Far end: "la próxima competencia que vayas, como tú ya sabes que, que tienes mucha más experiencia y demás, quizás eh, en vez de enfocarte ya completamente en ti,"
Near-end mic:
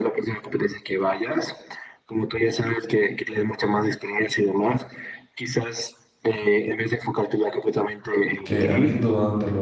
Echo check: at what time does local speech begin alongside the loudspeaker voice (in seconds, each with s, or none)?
8.4 s